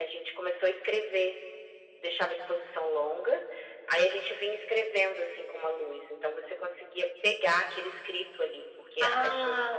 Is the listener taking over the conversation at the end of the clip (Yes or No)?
Yes